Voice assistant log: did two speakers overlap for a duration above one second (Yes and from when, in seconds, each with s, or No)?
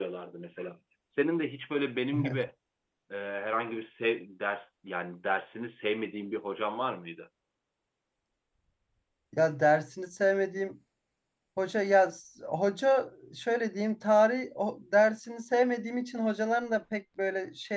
No